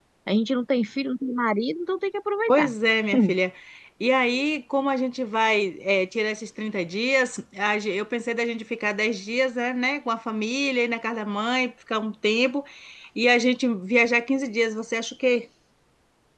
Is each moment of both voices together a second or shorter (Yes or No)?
Yes